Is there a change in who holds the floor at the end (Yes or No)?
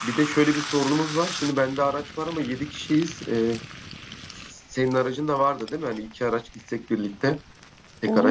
Yes